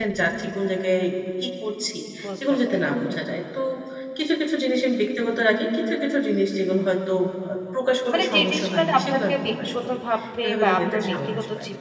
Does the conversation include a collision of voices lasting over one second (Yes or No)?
Yes